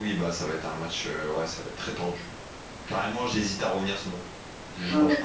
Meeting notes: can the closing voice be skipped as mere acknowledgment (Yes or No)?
No